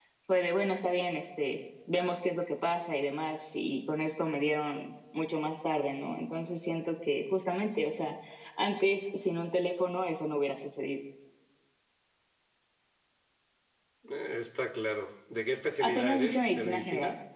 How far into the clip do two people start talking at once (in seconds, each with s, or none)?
15.8 s